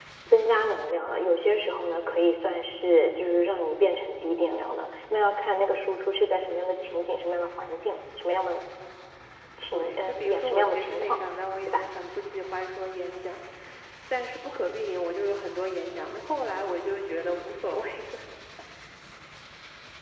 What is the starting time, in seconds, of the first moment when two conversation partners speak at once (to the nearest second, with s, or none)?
10 s